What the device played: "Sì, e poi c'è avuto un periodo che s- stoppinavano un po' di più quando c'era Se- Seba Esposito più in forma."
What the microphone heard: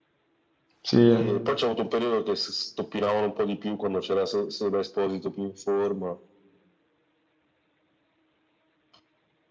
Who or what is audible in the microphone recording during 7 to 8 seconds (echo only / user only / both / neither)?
neither